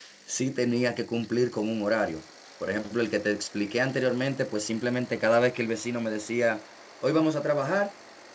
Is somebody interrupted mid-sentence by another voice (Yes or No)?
No